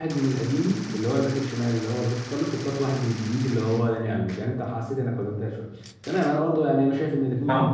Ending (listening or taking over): listening